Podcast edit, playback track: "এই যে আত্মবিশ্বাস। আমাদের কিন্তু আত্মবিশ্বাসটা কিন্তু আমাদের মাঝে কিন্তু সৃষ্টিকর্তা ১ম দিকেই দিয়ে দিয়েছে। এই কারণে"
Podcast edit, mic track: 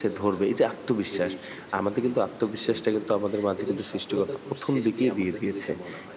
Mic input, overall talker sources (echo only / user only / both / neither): both